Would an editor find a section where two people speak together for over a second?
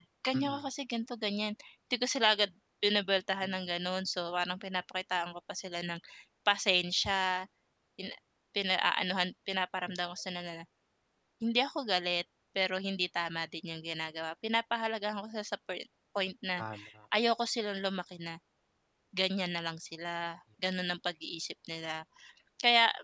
No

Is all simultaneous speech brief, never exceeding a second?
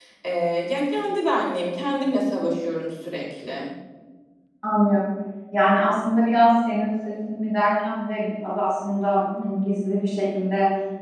Yes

